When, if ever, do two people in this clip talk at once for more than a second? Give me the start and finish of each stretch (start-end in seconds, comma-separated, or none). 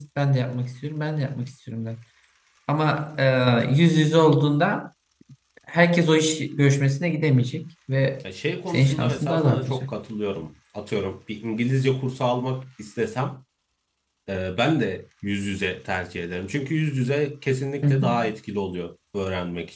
8.7-9.9